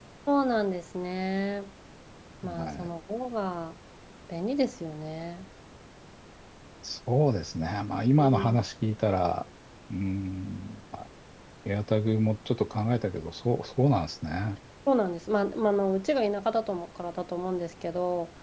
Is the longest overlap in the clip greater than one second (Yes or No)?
No